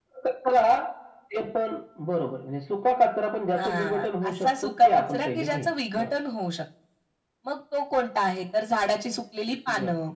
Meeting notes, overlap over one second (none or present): present